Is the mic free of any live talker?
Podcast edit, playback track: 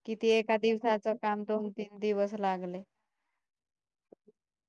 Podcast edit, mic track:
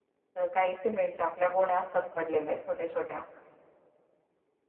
No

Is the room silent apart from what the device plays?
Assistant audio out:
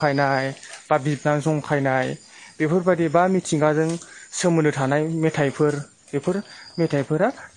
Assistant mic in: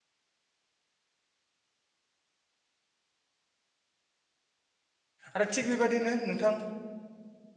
No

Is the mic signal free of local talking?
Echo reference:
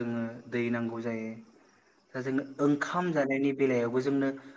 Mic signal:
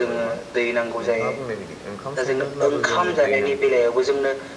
No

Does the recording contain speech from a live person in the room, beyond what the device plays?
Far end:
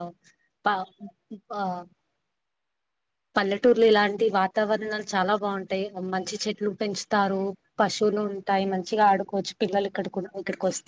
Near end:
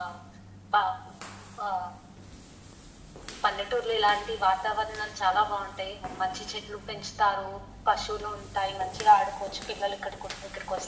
No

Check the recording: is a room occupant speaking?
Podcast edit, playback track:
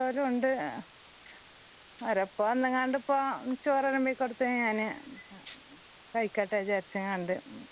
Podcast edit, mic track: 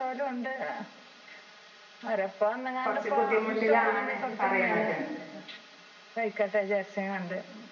Yes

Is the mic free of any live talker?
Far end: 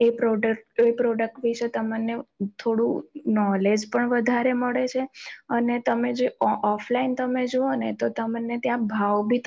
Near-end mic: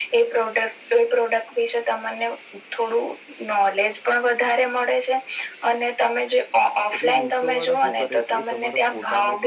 No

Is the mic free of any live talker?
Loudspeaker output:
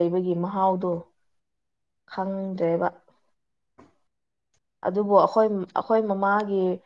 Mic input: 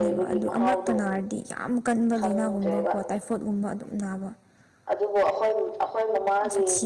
No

